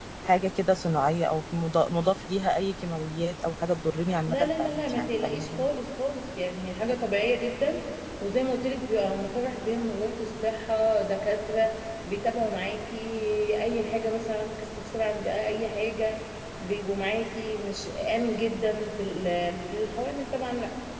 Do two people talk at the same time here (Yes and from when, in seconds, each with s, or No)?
Yes, from 4.3 s